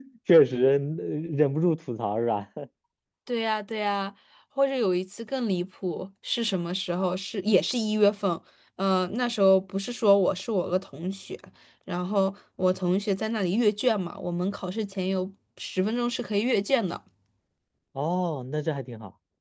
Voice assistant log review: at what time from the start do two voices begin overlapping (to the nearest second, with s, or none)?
none